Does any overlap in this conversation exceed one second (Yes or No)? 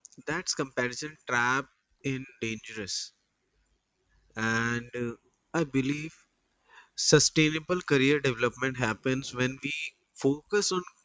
No